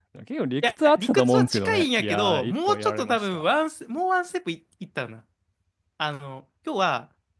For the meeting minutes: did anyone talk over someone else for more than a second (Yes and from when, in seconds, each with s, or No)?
Yes, from 0.6 s